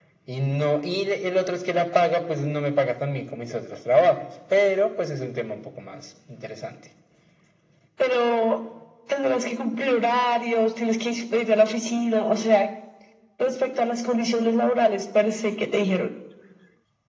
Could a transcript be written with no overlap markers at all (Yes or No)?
Yes